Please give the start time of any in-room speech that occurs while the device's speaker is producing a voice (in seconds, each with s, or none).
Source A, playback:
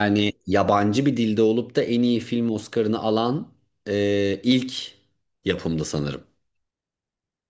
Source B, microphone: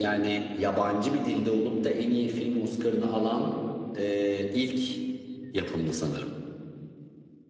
none